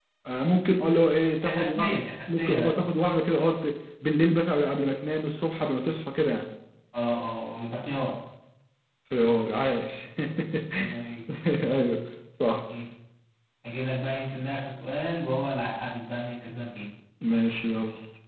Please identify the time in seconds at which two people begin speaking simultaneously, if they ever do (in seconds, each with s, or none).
1.4 s